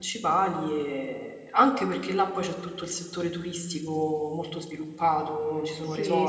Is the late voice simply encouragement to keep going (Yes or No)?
No